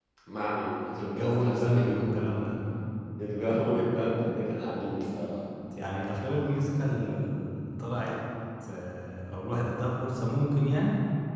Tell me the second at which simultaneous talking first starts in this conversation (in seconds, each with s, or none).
1.0 s